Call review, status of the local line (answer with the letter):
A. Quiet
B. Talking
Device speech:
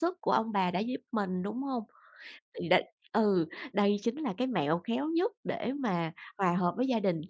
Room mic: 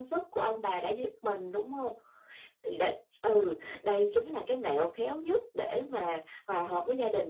A